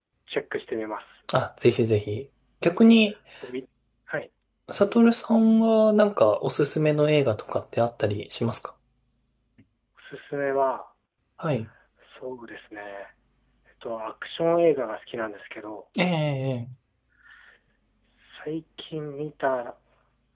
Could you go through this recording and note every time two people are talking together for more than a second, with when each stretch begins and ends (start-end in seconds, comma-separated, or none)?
none